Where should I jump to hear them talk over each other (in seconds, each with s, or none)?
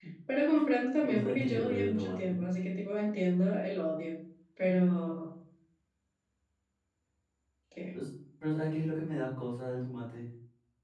1.0 s